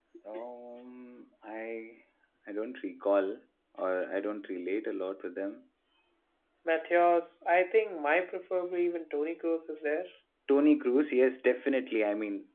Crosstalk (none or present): none